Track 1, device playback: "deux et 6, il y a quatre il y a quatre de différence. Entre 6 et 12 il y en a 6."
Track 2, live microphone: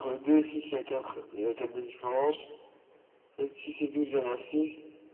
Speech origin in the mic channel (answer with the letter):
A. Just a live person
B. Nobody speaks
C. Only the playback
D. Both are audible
C